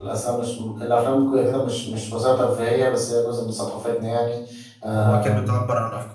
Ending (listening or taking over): taking over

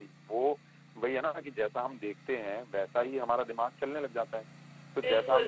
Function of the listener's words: taking over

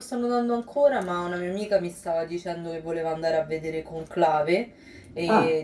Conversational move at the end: listening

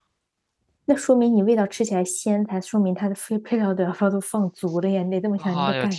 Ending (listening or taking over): taking over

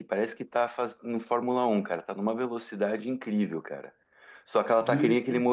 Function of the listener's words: listening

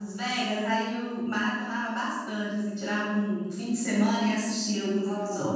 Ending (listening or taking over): taking over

